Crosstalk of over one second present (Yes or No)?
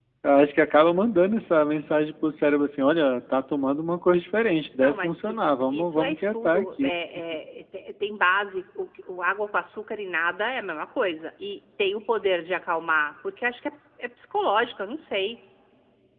Yes